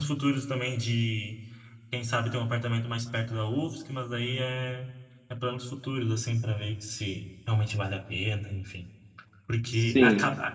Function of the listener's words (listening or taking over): listening